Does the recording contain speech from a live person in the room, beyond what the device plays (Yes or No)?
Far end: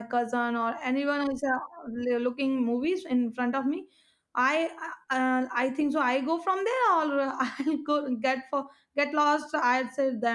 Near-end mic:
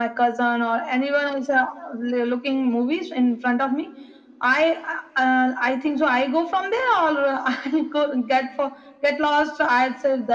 No